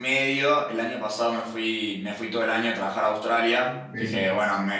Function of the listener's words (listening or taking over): listening